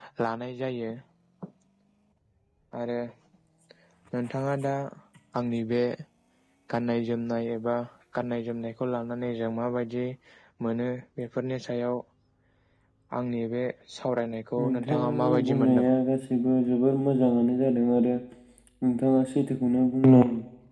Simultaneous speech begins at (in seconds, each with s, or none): 14.6 s